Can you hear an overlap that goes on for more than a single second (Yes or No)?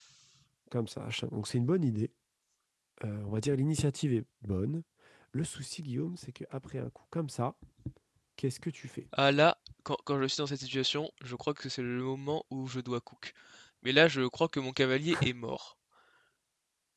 No